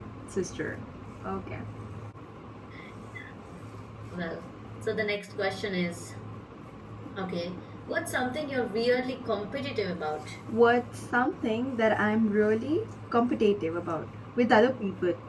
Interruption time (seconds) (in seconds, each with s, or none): none